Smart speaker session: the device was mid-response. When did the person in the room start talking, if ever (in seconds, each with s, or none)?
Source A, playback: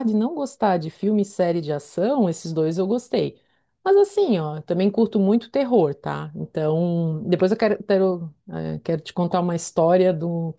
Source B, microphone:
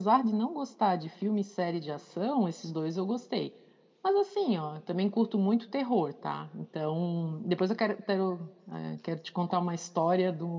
none